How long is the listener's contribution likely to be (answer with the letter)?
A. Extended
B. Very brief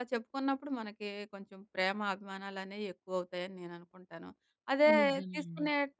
B